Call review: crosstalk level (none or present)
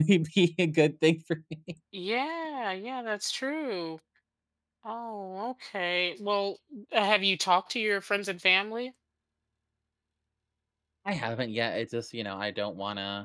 none